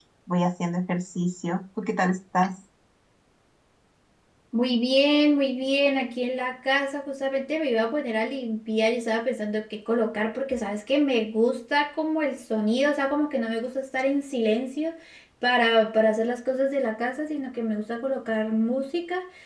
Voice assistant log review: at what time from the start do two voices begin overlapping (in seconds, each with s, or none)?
none